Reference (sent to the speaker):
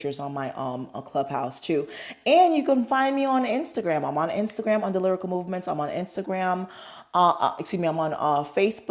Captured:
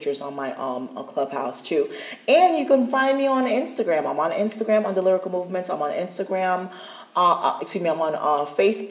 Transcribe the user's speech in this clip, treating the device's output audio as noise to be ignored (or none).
none